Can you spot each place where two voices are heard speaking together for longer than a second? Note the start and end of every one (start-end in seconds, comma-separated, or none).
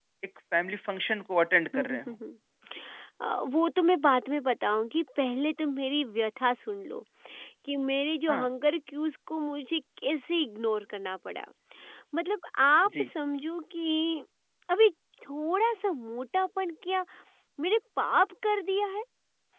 none